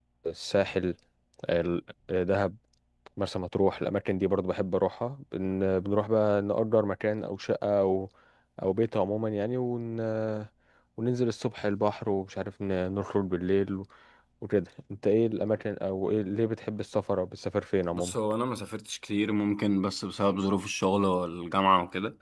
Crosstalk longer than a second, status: none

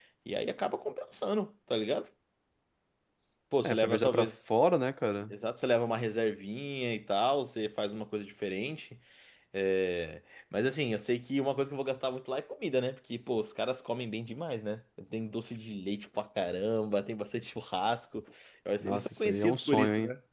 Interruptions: present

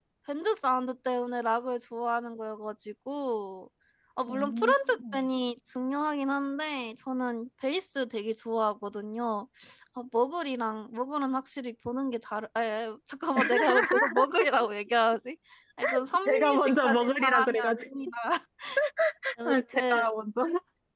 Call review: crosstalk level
present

